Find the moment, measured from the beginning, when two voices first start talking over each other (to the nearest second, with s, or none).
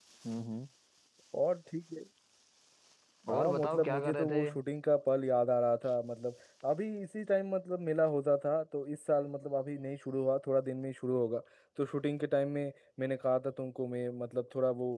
3 s